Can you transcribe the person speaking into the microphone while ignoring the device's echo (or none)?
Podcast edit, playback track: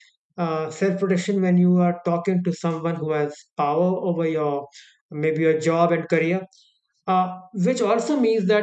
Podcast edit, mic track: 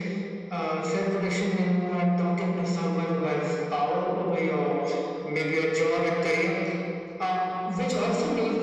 none